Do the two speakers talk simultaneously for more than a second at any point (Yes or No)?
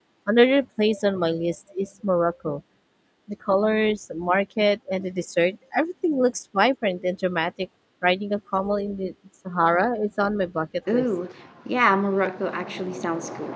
No